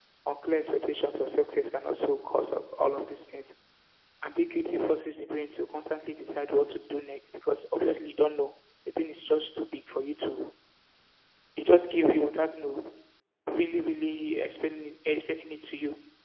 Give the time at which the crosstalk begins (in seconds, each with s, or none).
none